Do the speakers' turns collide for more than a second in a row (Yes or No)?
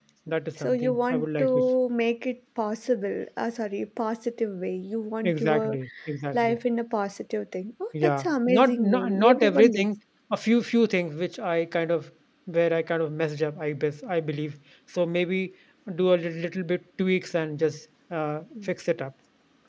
Yes